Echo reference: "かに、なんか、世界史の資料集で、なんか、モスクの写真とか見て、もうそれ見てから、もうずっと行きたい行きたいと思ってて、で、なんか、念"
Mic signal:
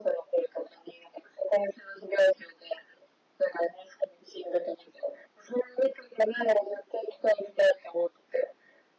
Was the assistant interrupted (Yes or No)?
No